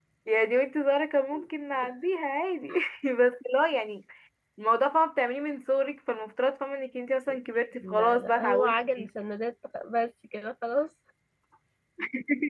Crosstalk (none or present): present